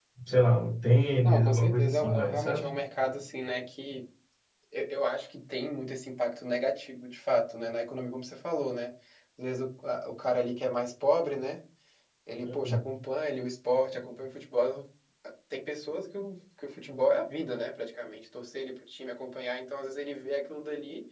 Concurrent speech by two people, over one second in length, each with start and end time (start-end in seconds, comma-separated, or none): 1.2-2.6